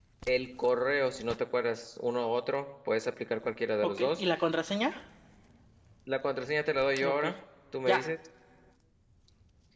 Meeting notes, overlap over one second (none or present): none